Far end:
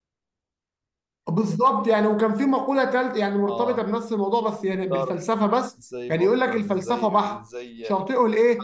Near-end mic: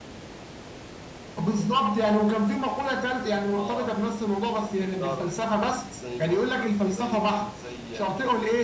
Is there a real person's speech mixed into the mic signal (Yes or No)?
No